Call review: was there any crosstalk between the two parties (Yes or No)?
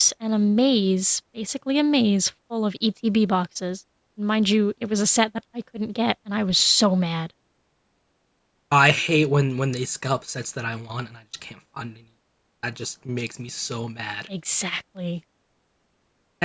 No